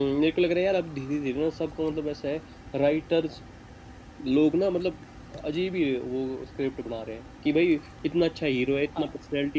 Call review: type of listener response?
listening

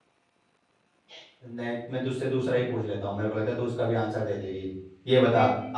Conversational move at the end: listening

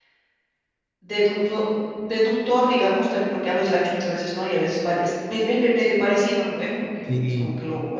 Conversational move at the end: listening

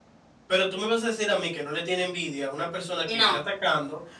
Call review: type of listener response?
listening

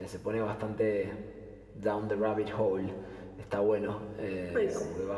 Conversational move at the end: listening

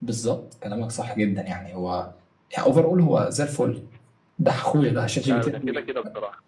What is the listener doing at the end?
taking over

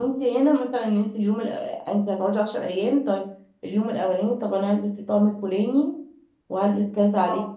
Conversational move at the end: listening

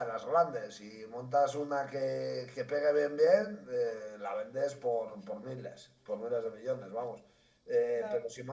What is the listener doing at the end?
listening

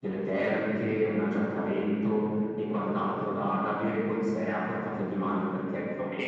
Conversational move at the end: taking over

